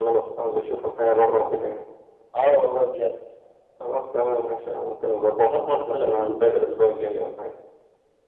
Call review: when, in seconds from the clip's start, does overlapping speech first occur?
5 s

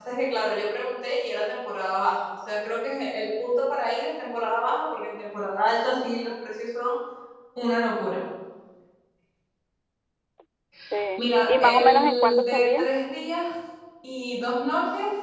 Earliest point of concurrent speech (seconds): 11 s

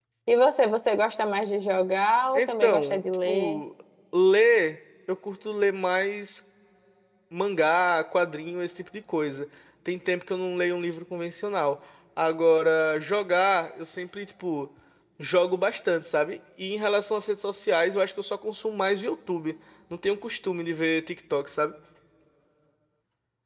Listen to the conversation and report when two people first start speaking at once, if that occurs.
2 s

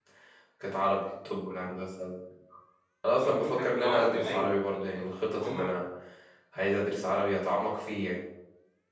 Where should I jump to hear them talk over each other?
3 s

